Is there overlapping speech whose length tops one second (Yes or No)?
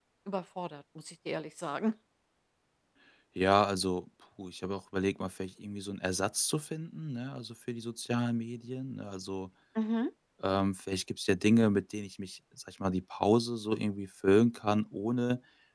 No